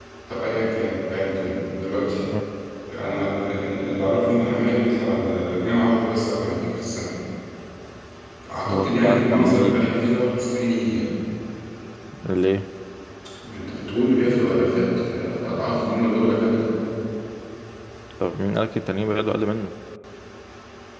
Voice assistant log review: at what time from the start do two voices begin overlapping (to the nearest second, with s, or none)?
9 s